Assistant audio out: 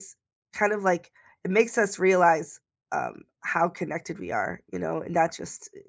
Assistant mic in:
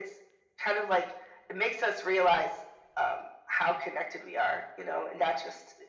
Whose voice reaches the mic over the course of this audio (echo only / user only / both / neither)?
echo only